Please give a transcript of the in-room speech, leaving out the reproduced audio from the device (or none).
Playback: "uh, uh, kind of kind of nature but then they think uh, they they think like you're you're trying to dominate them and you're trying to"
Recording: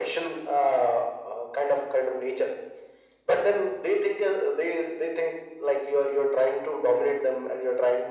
none